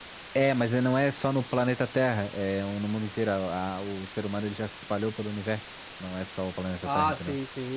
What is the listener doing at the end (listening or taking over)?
taking over